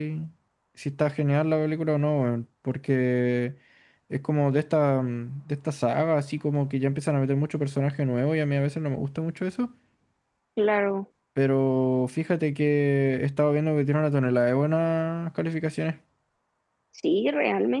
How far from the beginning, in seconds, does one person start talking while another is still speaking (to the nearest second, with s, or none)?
none